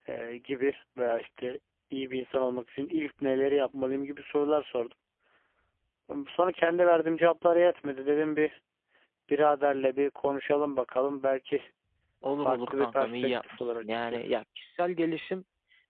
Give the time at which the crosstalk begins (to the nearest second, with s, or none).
12 s